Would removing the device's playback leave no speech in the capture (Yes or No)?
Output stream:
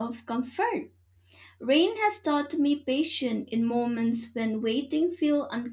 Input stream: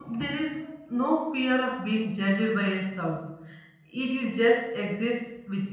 No